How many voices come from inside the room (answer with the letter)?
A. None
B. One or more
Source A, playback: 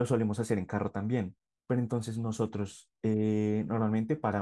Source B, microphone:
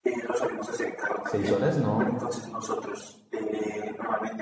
B